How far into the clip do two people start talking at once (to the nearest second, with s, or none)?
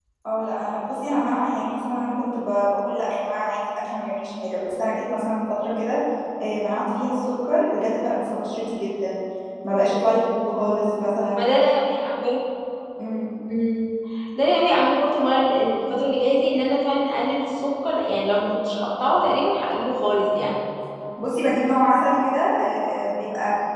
none